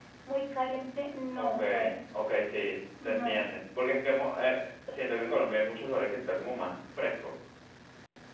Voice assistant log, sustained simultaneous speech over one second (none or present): none